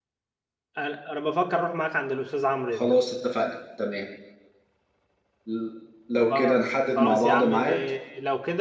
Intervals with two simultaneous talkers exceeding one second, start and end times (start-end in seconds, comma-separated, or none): 6.3-7.7